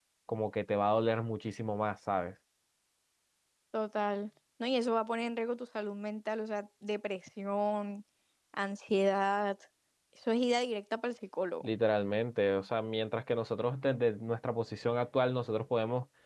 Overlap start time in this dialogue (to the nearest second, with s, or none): none